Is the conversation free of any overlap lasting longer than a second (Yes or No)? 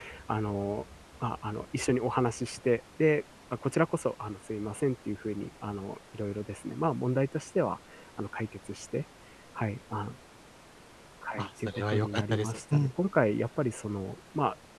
No